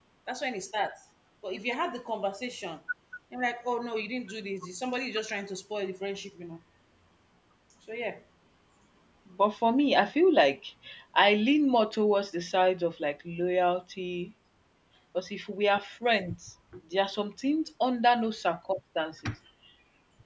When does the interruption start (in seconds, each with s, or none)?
none